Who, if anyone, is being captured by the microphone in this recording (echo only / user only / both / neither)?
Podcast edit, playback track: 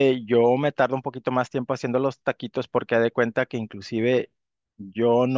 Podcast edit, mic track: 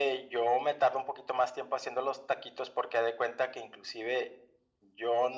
echo only